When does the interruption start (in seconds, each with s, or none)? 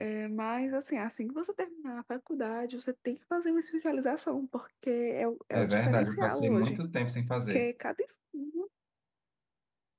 5.5 s